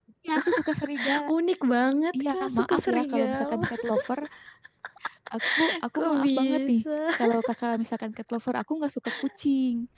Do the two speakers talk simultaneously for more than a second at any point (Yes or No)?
Yes